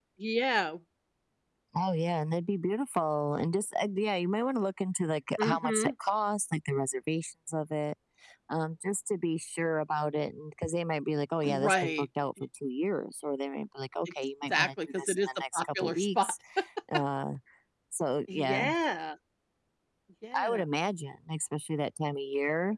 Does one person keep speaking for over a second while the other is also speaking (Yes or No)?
Yes